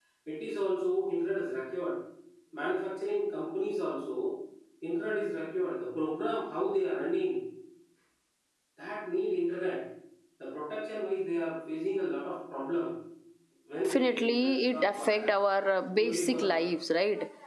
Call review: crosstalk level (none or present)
present